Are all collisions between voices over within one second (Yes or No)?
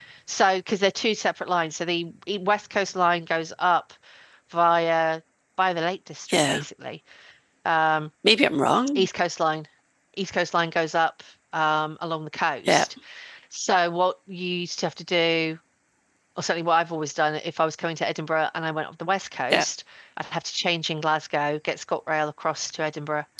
Yes